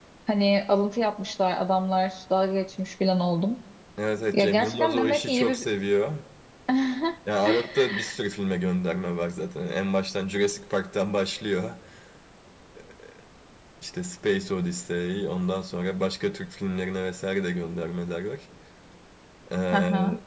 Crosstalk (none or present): present